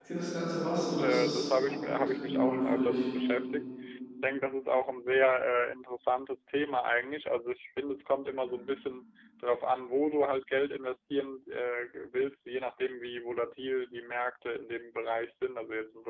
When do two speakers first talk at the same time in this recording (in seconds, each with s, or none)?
0.7 s